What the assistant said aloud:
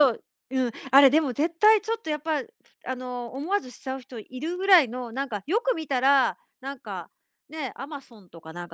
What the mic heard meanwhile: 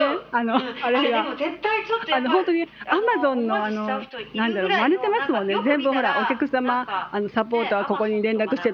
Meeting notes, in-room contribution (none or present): present